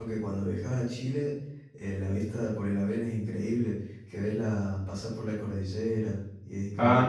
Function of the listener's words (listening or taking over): taking over